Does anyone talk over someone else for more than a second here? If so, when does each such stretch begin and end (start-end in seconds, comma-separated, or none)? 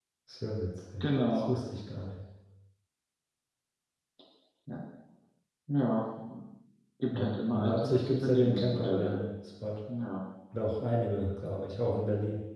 7.1-9.2